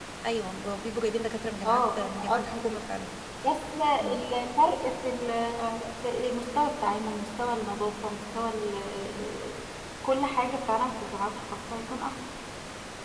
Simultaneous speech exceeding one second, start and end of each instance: 1.6-2.8

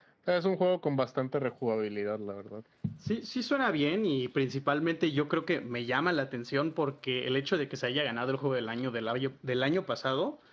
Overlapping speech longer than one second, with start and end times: none

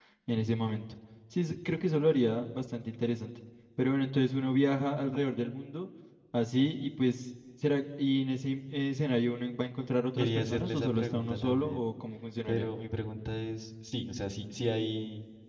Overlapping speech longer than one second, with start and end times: 10.2-11.8

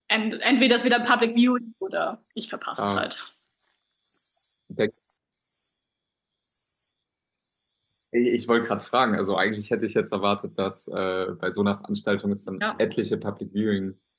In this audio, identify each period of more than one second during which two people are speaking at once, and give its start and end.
none

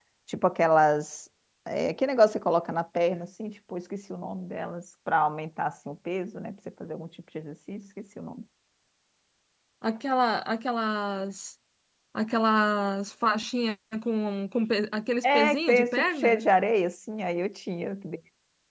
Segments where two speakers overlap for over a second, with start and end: 15.2-16.5

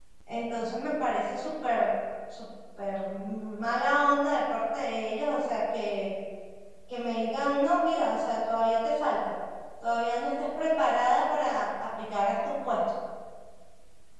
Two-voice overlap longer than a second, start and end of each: none

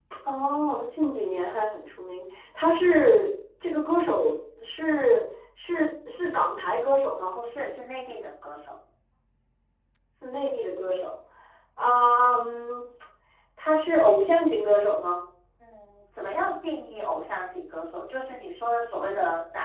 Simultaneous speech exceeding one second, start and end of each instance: none

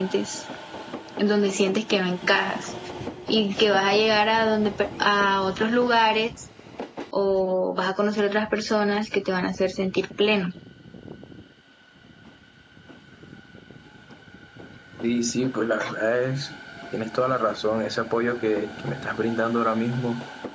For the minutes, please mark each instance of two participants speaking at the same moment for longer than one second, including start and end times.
none

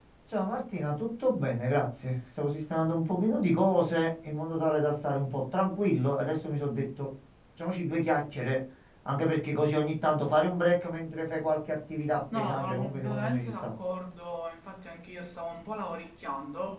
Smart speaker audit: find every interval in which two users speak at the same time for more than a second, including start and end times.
12.3-13.7

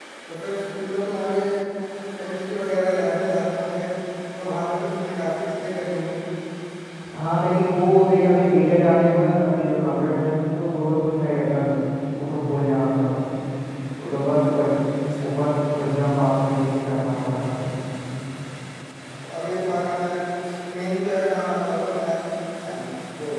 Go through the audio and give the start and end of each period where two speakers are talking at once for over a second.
none

